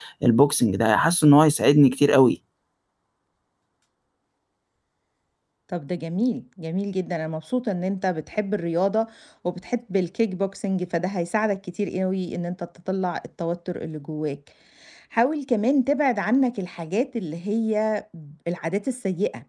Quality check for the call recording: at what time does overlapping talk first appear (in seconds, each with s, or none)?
none